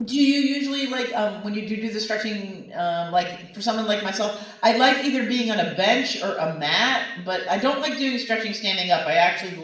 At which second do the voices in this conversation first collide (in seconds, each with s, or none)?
none